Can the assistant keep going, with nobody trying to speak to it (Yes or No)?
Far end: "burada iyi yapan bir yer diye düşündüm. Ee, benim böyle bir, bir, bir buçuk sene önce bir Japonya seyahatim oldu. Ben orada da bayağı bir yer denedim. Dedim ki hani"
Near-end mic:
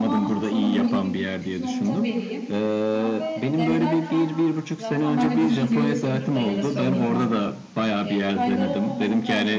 No